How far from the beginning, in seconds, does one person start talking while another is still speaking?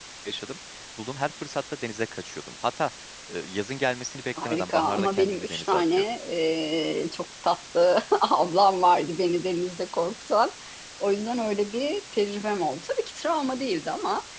4 s

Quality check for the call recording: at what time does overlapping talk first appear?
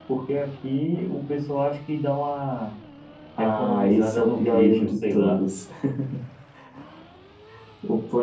3 s

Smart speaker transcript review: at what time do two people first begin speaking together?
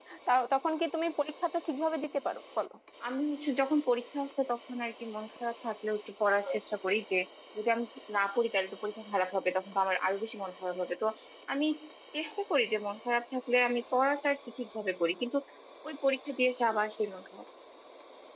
none

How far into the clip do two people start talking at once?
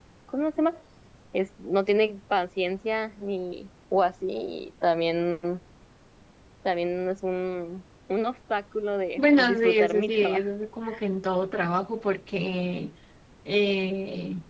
9 s

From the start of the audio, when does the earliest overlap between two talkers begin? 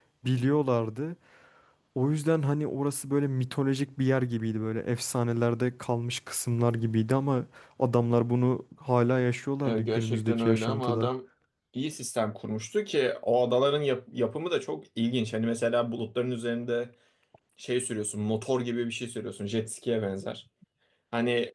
10 s

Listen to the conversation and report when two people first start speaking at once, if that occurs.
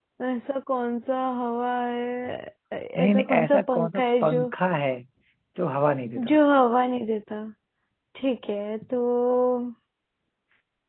3 s

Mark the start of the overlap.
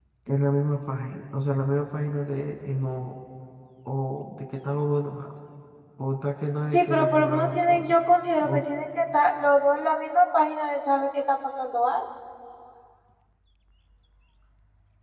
7 s

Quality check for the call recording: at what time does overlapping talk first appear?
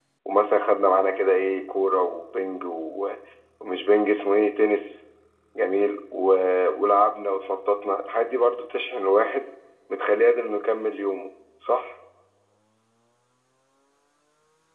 none

